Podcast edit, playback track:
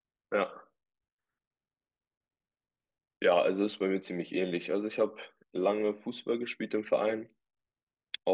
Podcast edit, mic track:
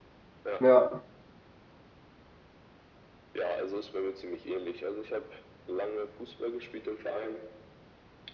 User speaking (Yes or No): Yes